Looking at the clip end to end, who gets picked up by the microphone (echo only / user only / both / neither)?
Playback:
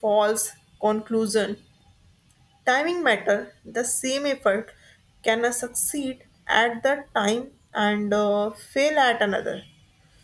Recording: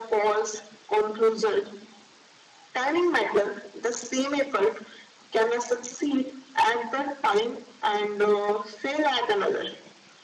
echo only